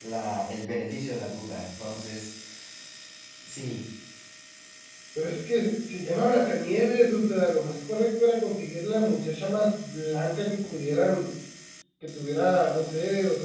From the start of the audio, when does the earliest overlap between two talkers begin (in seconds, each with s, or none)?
none